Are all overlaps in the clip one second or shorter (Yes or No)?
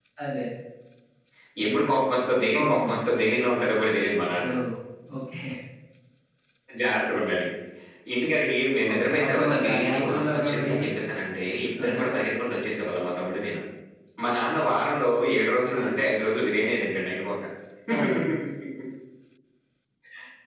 No